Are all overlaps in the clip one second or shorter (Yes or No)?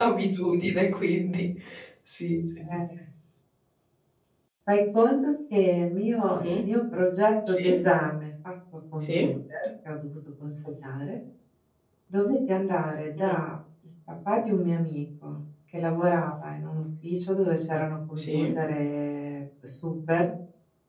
Yes